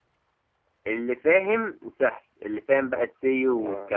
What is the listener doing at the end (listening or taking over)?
listening